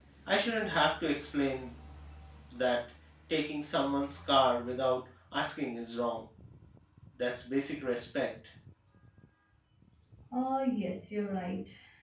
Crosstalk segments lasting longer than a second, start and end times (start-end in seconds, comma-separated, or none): none